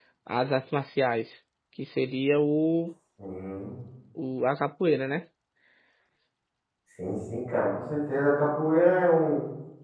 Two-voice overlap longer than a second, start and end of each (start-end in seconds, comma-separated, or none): none